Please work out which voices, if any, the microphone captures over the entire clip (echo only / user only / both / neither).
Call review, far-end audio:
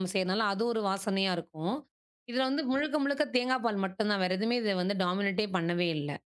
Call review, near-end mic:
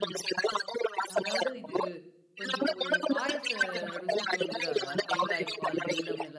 both